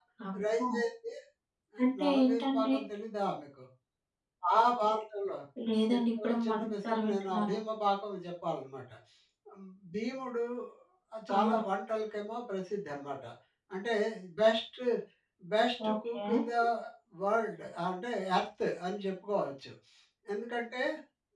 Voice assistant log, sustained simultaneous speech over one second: present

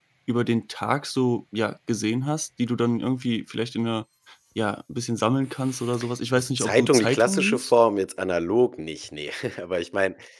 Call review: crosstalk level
present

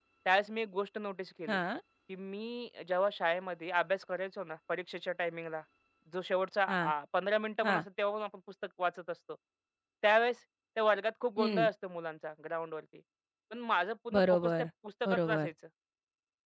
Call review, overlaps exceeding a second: none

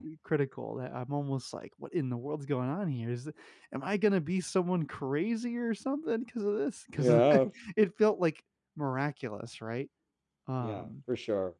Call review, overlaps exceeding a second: none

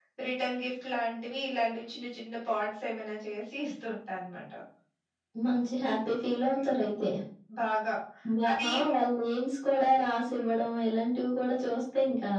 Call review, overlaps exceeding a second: none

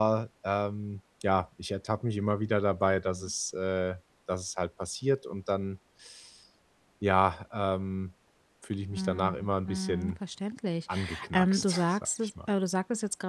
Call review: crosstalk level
present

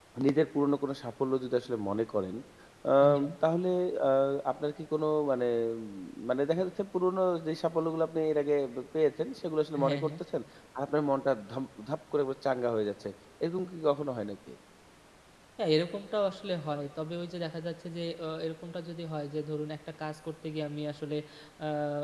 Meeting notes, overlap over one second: none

